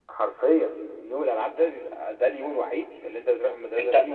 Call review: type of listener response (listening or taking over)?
taking over